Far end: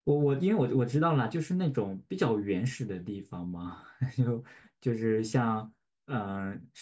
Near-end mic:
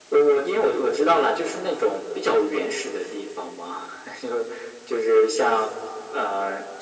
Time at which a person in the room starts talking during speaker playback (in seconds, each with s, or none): none